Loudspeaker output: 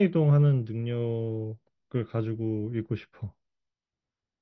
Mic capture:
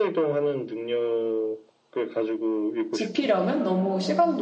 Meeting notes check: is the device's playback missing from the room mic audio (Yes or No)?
No